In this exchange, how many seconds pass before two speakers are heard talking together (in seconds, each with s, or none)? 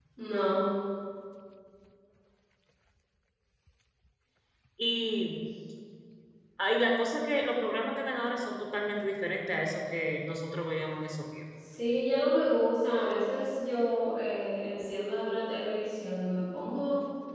none